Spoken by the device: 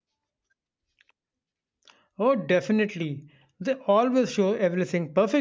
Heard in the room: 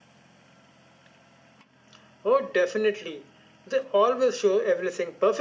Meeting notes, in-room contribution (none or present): none